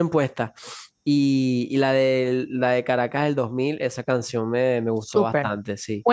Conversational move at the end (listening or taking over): taking over